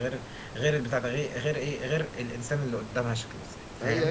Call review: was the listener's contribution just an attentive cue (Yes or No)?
No